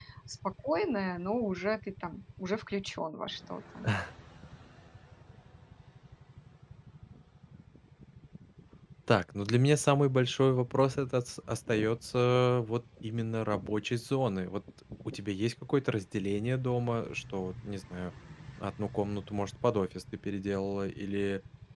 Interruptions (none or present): none